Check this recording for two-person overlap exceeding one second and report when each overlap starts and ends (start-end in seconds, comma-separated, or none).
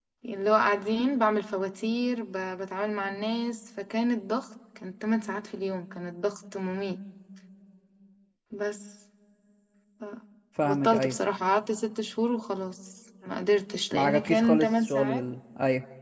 13.9-15.2